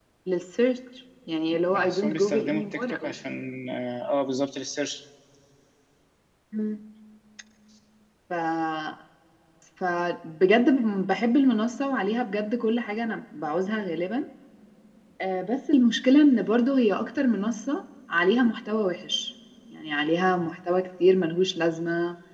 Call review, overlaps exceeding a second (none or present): present